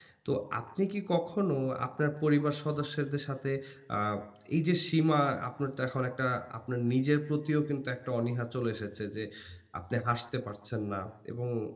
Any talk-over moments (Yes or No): No